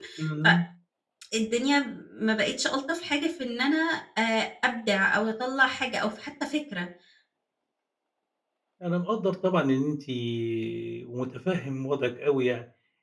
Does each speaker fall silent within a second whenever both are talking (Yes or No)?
Yes